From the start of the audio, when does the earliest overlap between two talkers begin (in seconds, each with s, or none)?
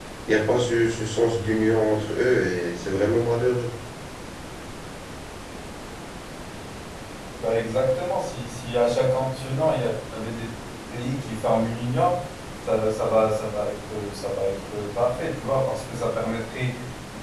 none